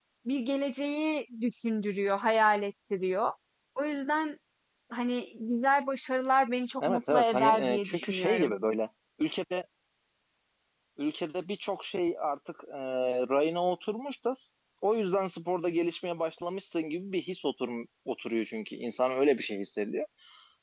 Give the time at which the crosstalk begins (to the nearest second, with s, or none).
7 s